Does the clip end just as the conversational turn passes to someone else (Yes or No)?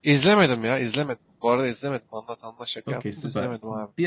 Yes